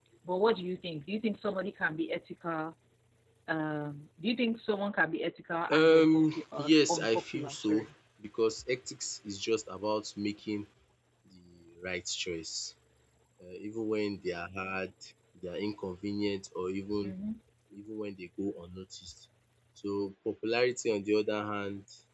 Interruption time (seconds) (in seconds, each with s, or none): 5.7 s